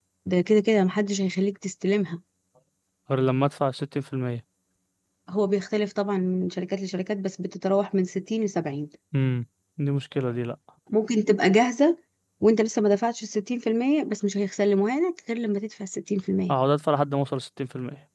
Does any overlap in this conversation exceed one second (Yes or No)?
No